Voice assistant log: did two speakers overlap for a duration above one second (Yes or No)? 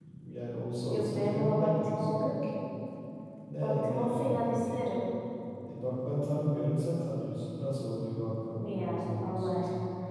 Yes